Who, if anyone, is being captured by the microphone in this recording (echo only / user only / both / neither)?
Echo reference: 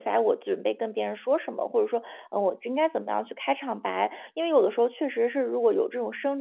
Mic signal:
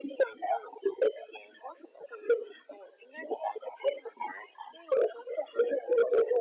echo only